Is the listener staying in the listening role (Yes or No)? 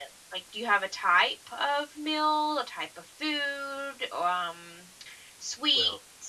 Yes